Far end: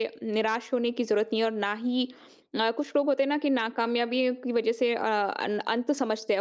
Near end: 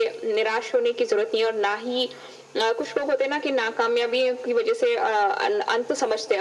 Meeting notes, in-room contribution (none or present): none